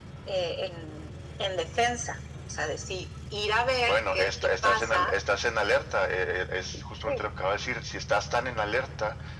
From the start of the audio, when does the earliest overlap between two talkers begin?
4 s

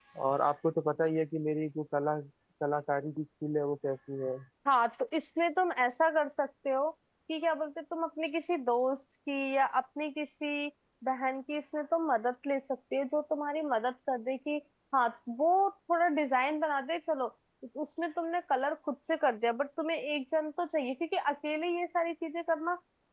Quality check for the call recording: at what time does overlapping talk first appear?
none

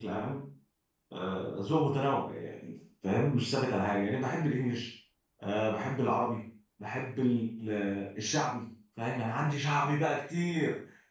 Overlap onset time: none

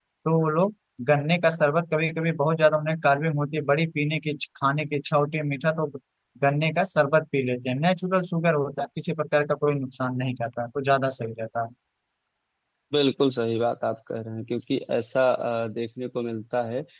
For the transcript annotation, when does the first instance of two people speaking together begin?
none

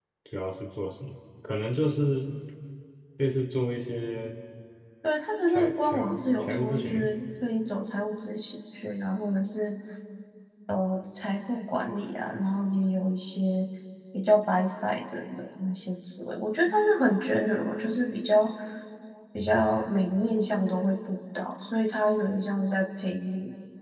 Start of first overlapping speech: 5 s

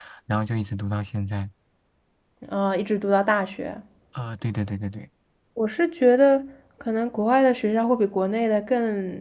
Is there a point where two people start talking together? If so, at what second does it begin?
none

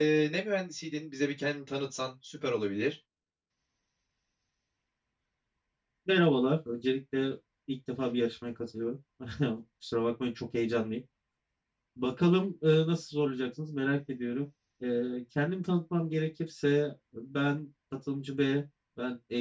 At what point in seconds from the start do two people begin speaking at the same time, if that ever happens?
none

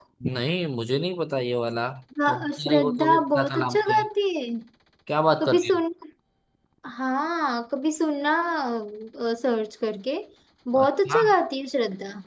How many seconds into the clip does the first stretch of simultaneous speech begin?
2 s

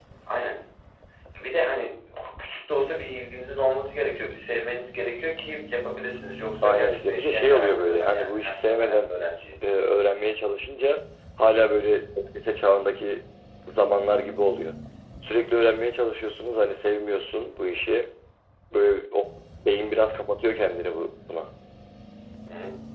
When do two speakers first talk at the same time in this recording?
7 s

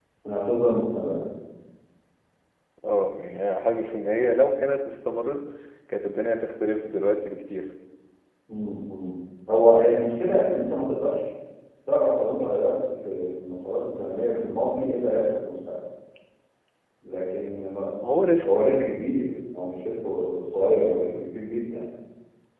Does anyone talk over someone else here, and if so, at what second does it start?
none

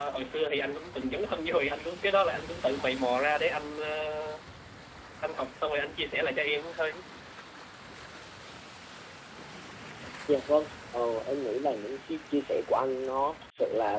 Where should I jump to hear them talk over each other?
none

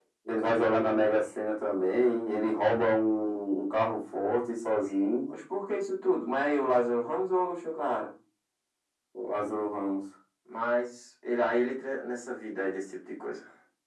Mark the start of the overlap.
none

